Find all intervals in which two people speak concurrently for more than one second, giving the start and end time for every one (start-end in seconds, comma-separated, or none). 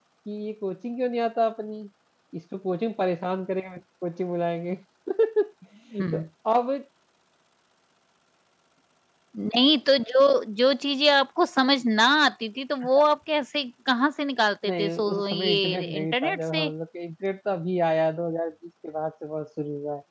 14.7-16.7